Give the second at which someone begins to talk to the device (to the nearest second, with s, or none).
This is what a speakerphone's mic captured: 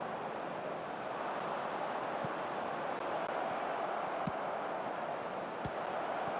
none